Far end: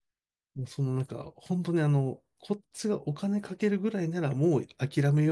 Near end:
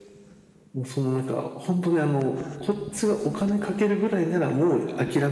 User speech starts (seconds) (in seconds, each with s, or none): none